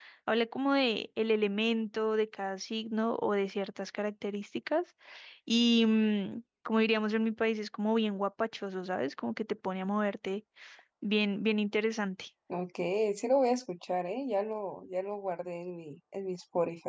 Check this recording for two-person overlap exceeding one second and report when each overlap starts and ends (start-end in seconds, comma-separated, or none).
none